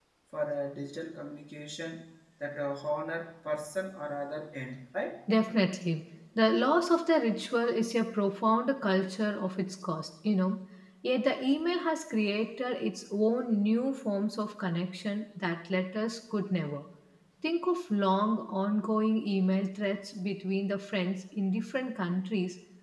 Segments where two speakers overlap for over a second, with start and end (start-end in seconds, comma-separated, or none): none